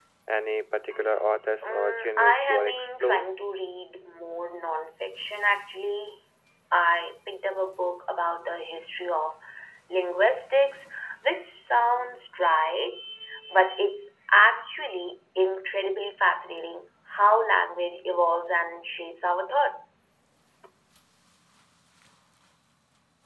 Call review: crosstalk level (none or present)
present